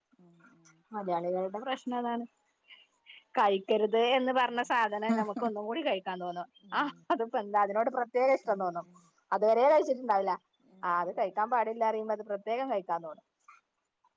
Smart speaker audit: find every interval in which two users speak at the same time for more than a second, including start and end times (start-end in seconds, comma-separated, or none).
none